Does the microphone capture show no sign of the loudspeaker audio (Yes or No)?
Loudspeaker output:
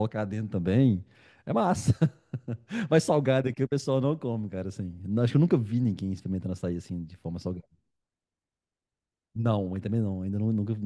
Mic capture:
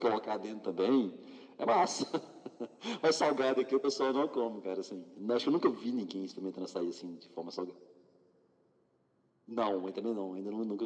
No